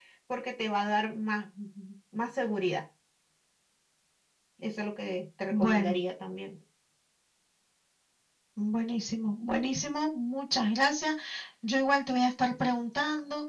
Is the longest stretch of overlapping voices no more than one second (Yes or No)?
Yes